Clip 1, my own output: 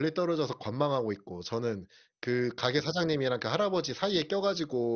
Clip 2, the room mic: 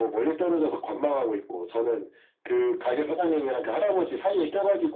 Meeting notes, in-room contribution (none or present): none